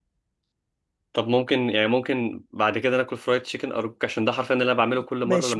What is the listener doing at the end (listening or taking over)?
taking over